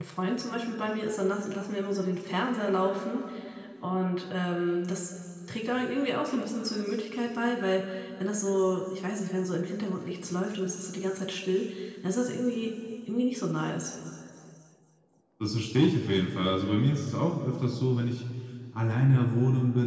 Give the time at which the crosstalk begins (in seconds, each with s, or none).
none